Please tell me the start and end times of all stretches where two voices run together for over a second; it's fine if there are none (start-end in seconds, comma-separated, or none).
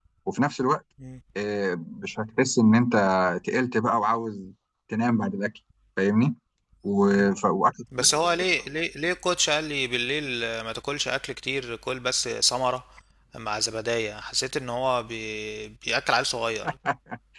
none